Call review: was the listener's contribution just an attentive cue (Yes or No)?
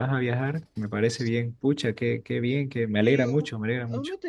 No